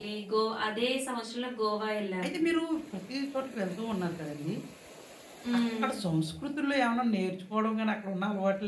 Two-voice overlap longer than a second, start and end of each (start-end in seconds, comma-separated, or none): none